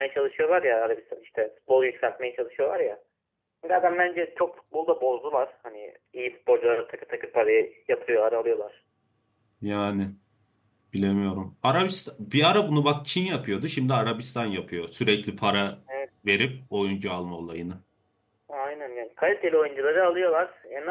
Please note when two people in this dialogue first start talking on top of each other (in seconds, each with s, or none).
none